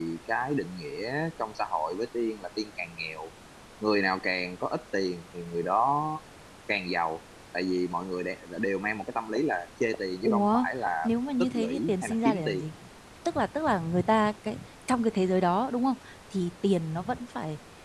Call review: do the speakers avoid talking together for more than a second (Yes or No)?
No